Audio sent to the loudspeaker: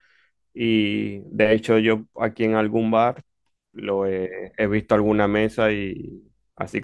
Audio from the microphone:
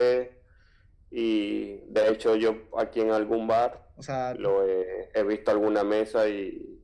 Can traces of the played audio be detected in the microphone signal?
Yes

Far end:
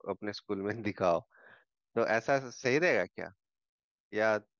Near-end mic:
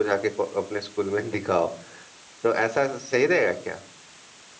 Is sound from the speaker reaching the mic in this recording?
Yes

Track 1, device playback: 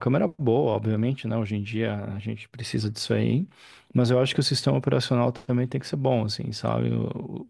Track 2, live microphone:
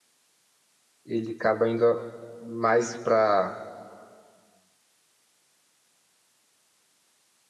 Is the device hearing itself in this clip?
No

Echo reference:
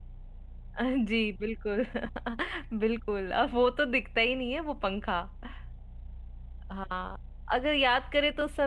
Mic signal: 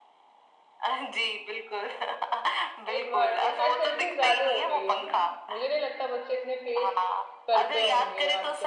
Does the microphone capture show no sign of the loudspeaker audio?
No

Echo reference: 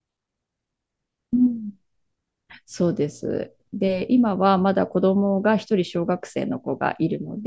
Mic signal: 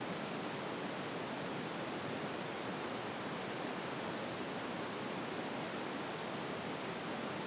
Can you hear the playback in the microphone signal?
No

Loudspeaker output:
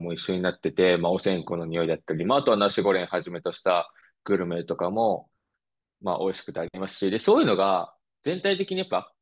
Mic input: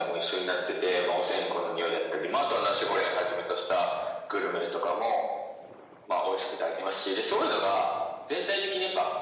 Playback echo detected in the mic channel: Yes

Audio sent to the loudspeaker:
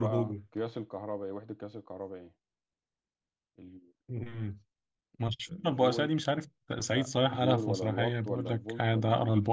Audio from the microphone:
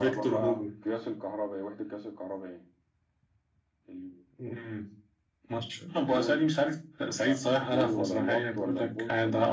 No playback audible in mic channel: No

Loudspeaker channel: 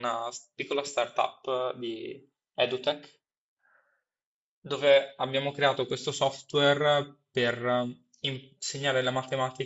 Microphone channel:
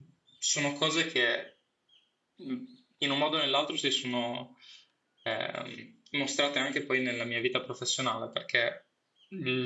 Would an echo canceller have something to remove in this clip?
No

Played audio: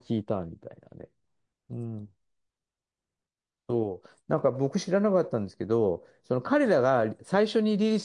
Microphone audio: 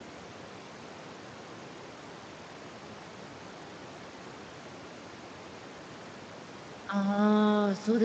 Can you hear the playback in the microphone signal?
No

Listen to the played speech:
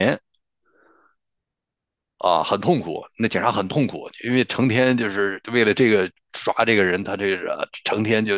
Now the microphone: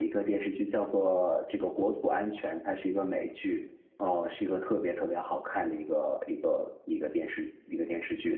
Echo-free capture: Yes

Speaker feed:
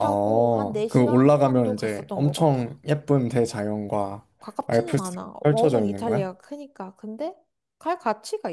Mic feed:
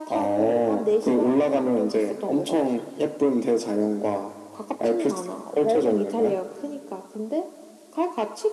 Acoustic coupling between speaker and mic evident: Yes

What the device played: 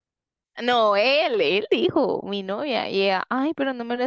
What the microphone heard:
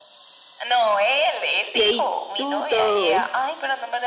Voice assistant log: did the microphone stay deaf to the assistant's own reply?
No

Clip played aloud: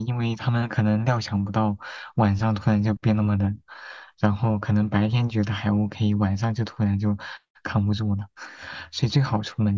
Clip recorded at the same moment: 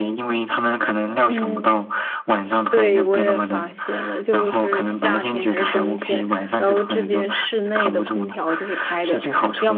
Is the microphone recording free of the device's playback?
No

